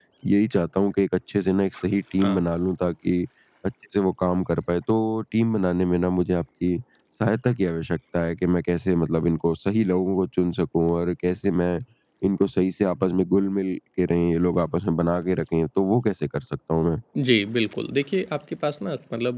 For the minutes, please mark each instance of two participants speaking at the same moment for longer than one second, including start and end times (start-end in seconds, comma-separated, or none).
none